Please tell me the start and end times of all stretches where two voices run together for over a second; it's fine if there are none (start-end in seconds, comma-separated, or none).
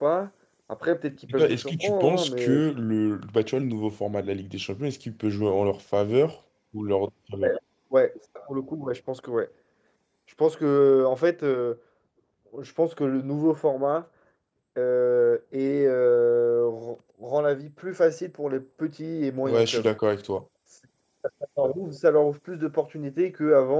1.3-2.6